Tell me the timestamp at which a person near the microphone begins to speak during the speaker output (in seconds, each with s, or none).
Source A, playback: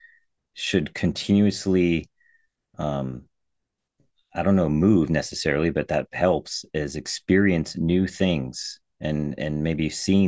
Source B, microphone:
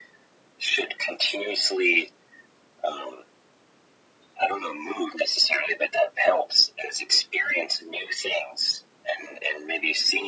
none